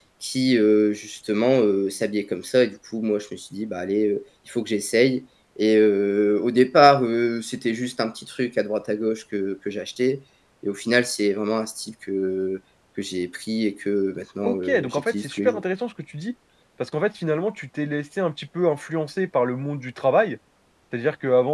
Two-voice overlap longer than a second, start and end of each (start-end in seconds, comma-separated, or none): 14.4-15.6